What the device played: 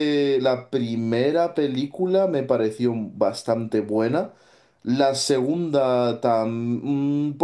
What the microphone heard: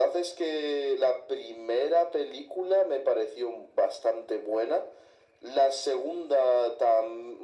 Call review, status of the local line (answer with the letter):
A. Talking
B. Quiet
B